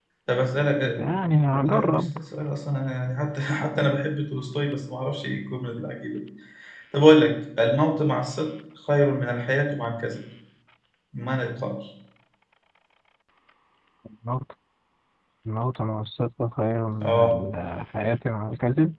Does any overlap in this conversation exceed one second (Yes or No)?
No